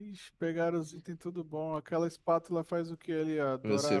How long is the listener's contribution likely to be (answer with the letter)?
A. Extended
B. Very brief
A